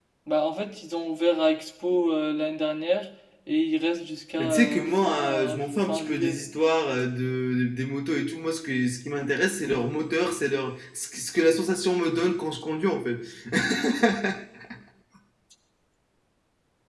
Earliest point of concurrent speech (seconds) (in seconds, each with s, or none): 4.4 s